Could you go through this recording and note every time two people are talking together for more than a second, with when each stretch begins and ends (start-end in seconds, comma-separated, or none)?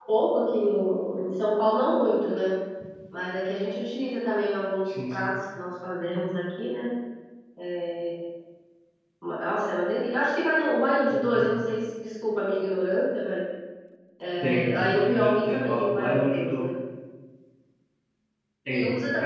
14.4-16.7